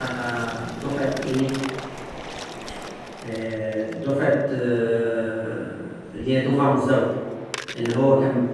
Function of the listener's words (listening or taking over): listening